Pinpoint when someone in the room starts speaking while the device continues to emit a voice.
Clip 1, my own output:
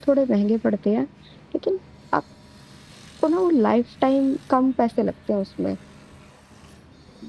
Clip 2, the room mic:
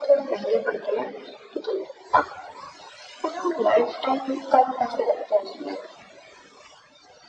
none

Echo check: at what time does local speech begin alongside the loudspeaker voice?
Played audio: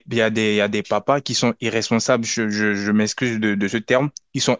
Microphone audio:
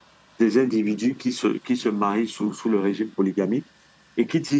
0.4 s

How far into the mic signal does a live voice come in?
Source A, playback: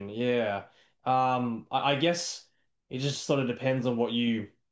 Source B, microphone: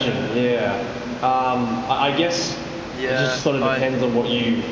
2.9 s

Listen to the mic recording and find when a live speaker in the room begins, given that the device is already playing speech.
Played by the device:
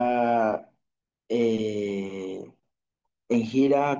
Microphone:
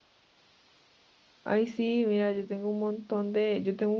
1.5 s

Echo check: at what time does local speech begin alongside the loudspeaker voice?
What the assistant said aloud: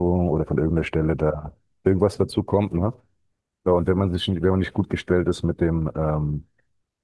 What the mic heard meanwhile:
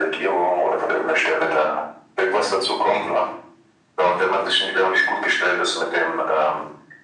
none

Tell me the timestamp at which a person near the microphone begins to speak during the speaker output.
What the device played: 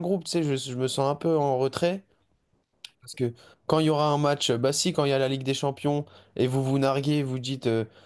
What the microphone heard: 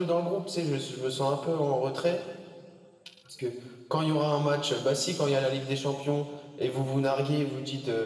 none

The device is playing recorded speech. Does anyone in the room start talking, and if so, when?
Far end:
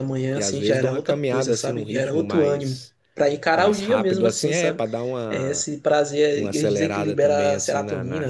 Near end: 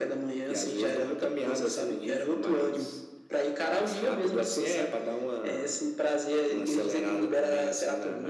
none

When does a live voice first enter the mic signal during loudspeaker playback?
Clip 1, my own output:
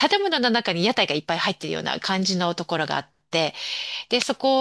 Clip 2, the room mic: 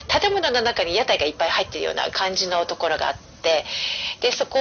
none

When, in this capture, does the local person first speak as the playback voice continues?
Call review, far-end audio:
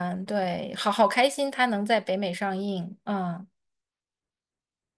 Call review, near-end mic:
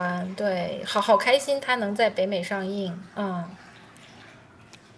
none

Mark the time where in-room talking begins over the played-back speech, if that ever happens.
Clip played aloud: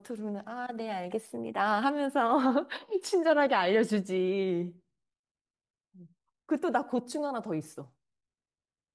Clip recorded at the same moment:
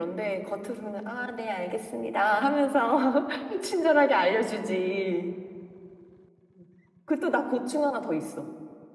none

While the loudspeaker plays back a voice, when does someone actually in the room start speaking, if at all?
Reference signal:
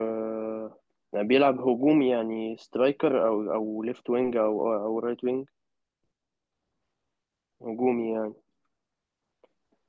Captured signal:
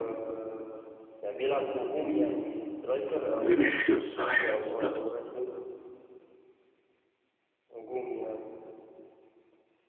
3.4 s

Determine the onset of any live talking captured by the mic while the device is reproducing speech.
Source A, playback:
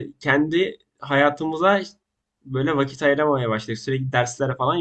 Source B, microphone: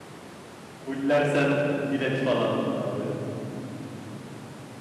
0.8 s

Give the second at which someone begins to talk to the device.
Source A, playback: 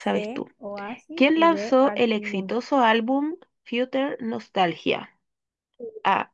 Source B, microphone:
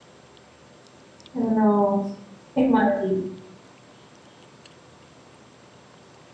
1.3 s

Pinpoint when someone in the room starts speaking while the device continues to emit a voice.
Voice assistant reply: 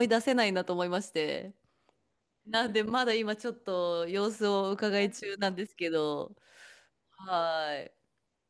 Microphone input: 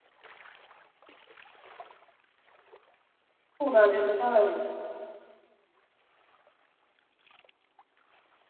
3.6 s

